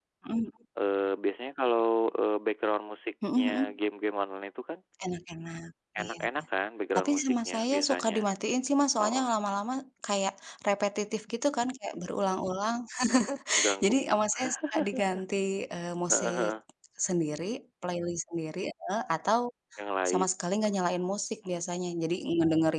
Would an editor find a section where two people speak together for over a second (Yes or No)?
Yes